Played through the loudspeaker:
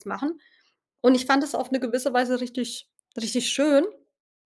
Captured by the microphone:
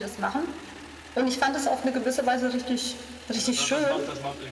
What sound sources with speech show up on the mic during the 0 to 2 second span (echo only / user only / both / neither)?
echo only